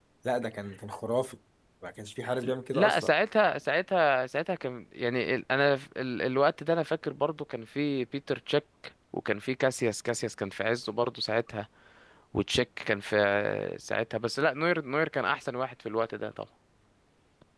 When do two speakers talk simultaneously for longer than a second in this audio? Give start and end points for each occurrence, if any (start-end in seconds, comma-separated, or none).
none